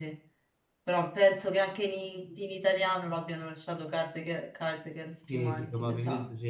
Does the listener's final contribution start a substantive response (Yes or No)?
Yes